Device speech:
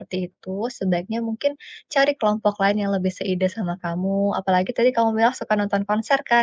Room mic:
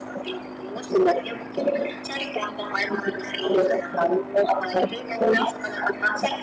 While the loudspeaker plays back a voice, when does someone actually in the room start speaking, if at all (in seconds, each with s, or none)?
none